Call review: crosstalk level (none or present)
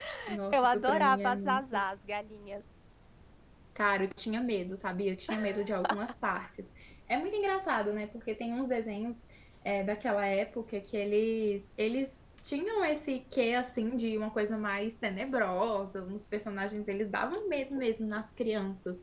present